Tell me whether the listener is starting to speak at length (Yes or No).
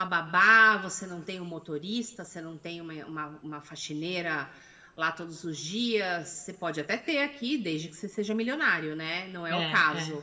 Yes